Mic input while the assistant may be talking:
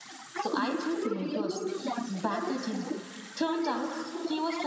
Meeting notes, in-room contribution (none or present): present